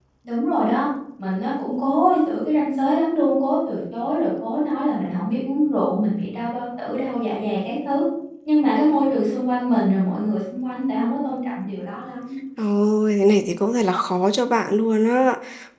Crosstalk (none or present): none